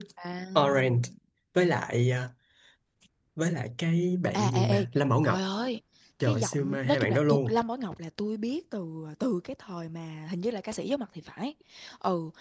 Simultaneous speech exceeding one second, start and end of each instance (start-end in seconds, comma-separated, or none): 6.2-7.6